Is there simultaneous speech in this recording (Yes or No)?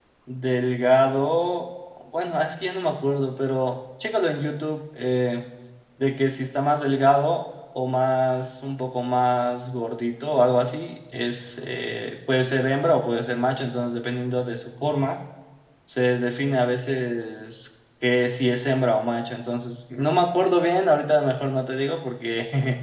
No